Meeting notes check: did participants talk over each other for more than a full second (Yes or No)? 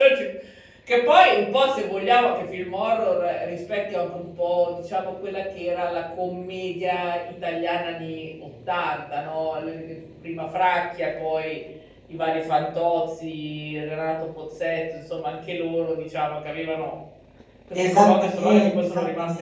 Yes